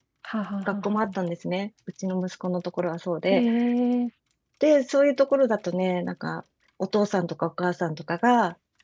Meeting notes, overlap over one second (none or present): none